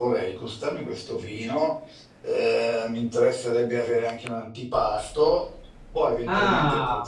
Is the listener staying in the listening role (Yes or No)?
No